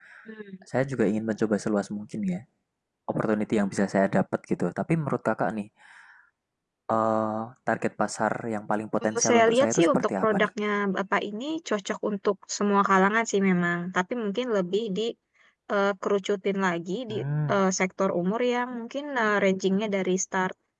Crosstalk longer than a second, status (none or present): present